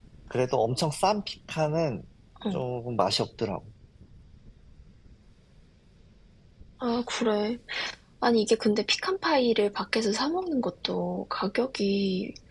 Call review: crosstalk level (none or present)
none